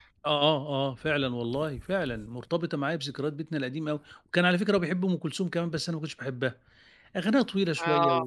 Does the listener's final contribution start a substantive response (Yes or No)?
No